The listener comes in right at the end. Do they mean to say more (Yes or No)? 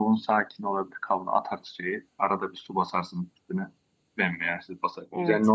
No